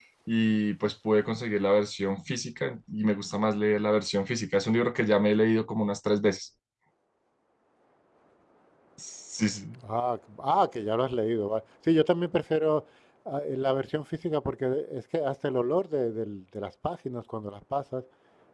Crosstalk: none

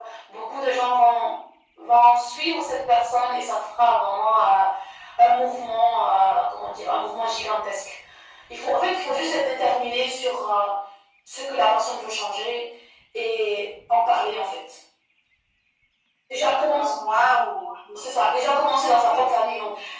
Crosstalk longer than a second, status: none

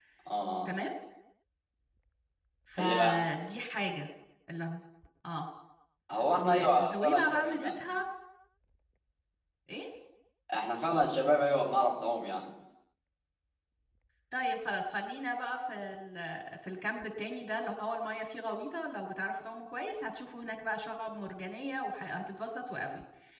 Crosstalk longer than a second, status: present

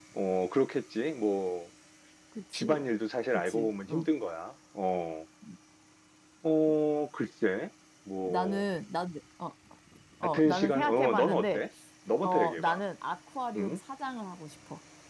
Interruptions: present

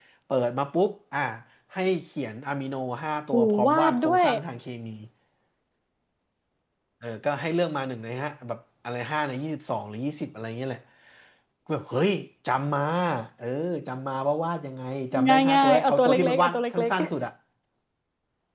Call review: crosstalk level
present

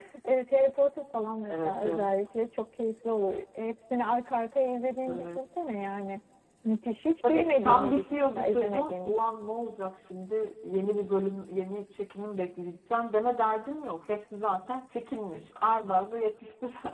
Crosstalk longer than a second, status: present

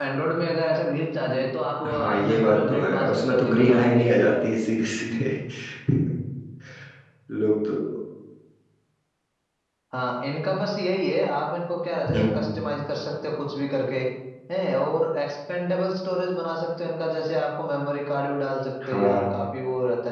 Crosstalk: present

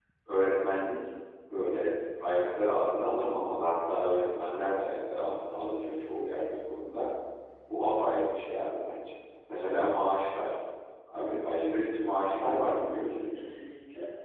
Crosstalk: present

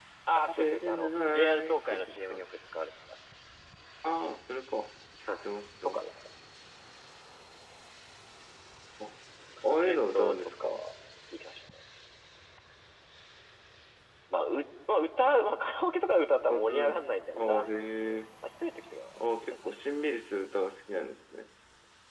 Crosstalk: present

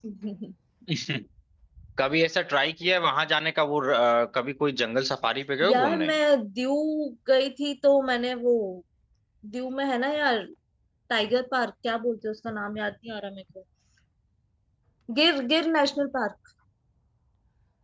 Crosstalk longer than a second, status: none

